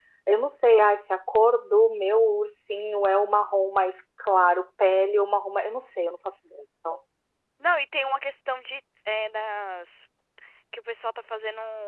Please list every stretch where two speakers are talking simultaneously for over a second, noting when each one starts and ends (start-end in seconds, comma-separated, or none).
none